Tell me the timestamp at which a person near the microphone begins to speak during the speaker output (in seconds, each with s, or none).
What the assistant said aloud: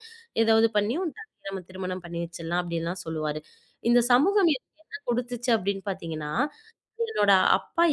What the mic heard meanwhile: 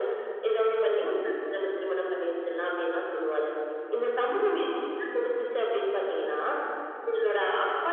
none